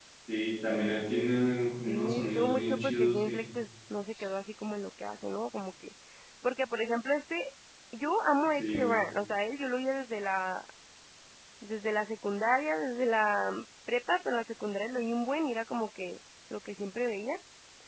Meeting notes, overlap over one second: present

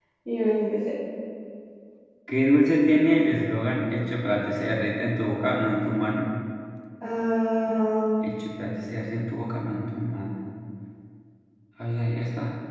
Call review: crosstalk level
none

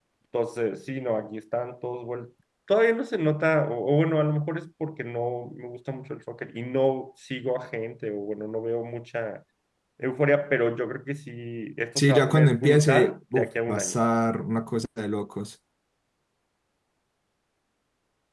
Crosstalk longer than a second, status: present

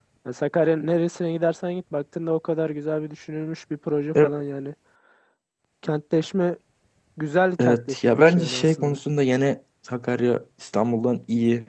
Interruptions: present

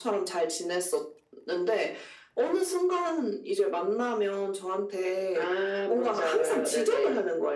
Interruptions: present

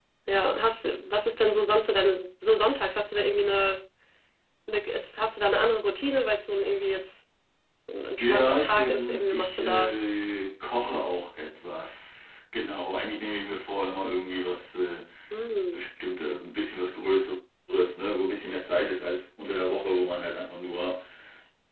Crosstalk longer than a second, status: present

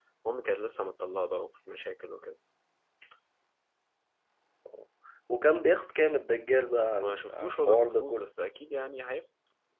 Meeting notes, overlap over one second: present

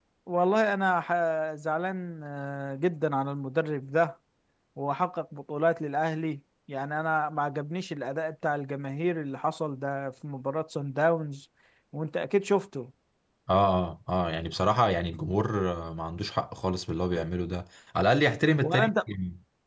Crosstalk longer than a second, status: none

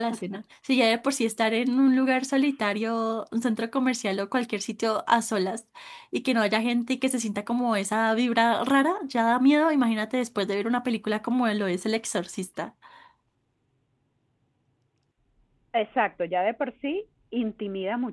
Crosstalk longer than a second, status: none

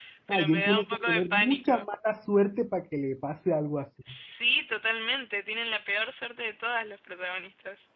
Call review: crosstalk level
present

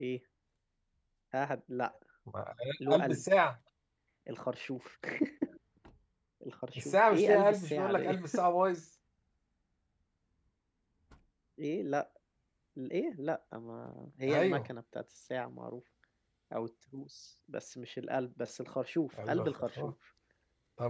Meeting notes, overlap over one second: present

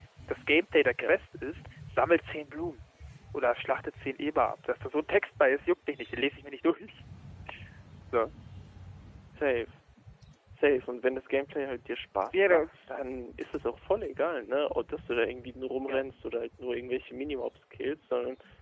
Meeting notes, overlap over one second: none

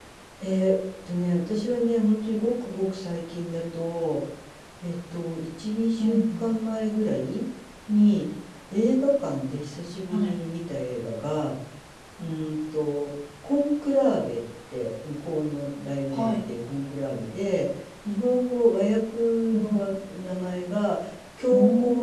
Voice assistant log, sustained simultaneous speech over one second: none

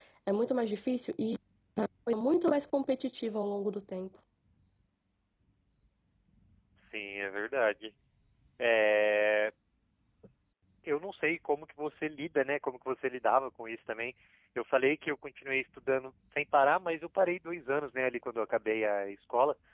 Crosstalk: none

